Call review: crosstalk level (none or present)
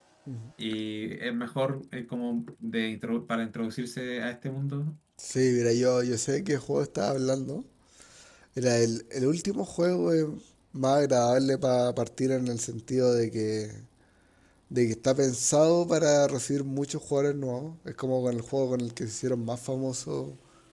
none